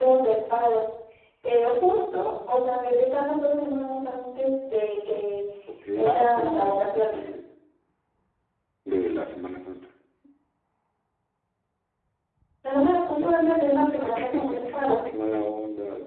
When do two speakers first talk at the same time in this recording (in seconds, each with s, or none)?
5.9 s